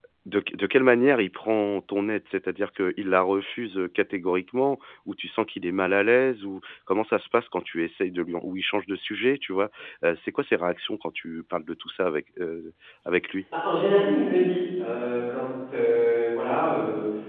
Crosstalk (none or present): none